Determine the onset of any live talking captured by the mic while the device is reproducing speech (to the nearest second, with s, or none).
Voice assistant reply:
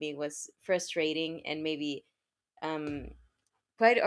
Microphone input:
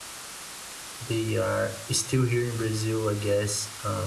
1 s